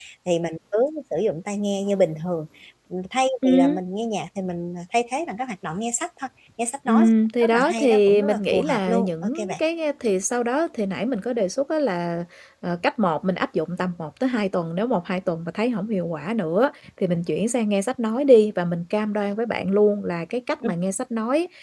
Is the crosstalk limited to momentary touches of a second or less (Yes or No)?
No